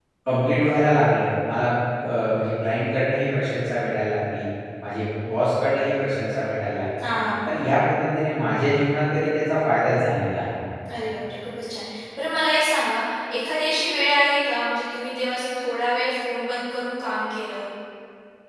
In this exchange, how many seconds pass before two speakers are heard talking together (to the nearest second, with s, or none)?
none